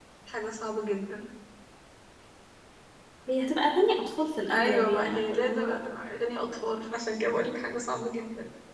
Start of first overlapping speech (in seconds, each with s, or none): 4.5 s